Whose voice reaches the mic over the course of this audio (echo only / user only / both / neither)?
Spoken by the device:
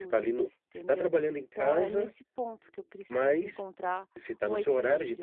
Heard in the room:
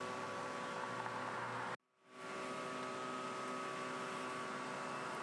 neither